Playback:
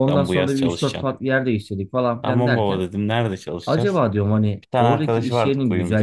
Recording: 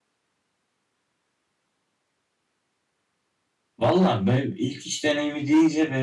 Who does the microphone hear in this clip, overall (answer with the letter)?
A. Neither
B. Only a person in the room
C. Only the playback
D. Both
B